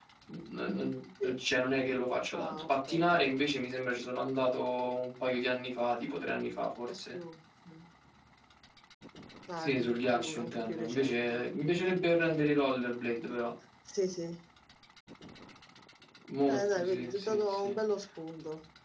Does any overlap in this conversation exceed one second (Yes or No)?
Yes